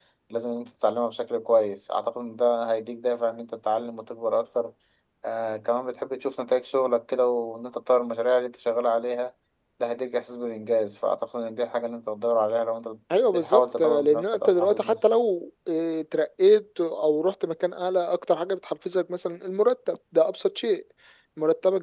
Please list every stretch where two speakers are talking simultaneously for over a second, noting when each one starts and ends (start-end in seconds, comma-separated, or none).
13.3-15.1